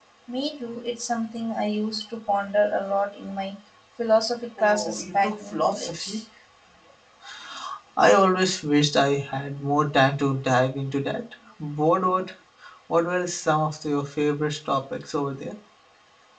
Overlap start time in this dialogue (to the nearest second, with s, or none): 5 s